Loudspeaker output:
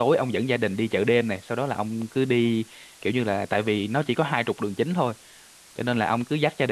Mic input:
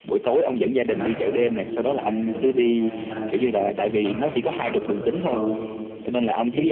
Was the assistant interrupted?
Yes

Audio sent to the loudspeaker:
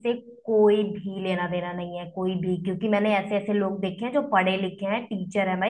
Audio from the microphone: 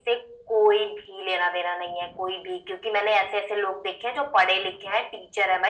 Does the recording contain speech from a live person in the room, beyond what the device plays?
No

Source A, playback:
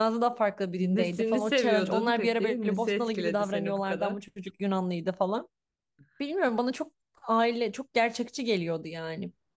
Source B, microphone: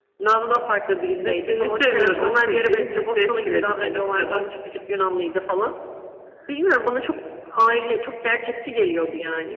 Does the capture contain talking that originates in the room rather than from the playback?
No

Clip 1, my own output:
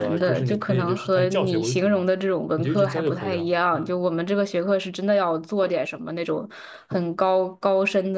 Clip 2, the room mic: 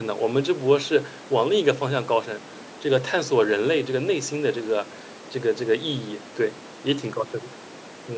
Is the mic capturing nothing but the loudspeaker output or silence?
No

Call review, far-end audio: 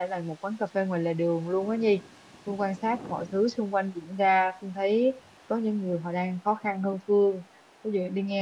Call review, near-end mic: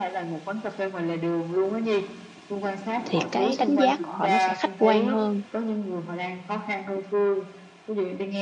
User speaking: Yes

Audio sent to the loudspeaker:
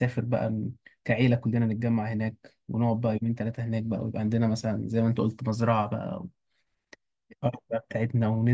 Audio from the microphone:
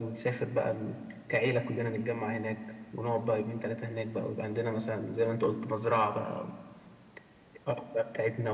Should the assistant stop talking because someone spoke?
No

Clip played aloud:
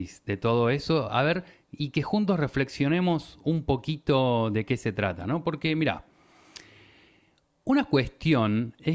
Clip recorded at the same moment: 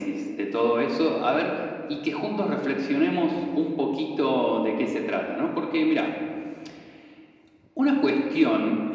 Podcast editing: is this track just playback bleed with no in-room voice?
Yes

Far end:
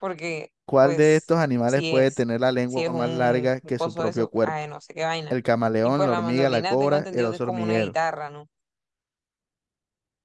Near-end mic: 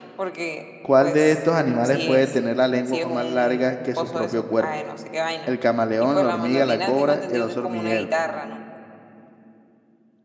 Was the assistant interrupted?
No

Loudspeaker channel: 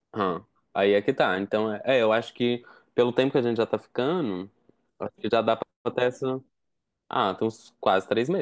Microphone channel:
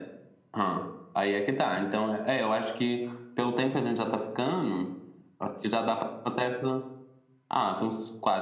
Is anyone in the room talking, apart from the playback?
No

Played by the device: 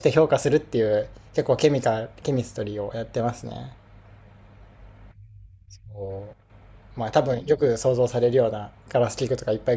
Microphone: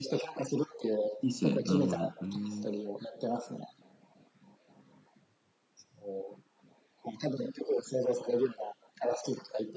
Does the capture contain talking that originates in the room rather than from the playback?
Yes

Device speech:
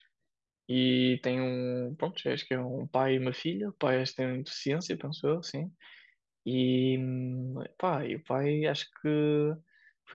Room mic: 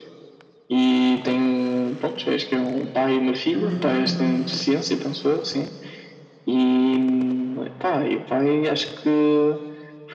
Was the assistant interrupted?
Yes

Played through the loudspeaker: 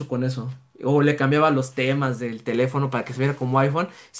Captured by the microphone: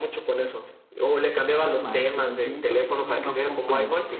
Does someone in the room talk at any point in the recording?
Yes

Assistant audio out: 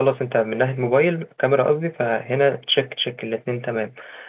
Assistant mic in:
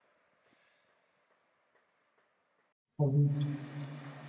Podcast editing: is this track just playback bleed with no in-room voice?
No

